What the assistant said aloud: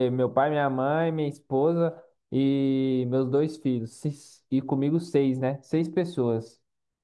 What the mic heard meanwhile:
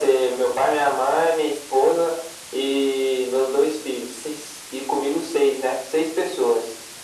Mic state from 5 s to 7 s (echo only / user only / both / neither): echo only